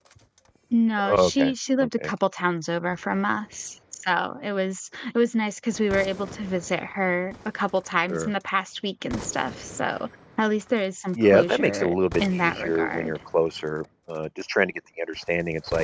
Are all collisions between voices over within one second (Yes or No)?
No